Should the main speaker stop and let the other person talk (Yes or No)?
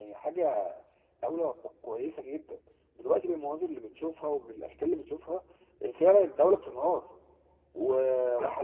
No